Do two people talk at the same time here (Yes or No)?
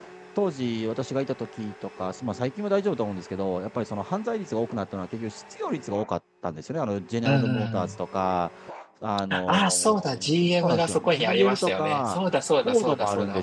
Yes